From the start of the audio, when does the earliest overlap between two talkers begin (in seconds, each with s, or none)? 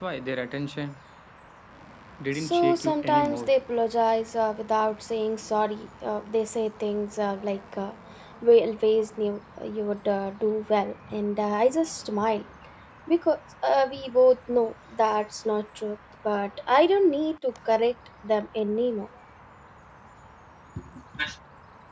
2.3 s